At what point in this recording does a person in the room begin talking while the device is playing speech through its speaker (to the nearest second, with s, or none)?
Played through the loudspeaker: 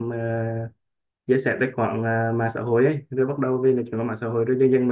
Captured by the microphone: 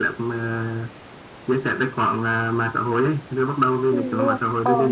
4 s